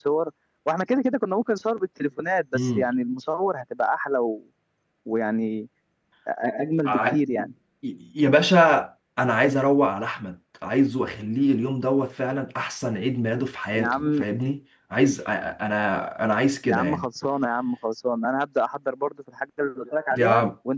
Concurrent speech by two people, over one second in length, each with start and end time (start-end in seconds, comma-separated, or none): none